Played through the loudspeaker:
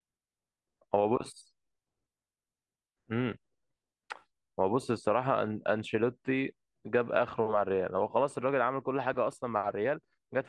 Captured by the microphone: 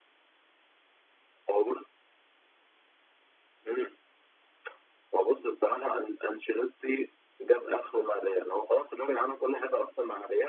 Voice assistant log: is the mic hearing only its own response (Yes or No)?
Yes